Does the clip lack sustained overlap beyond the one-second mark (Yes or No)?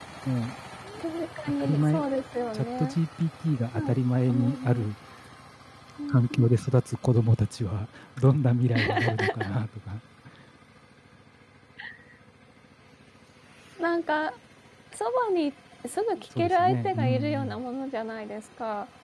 No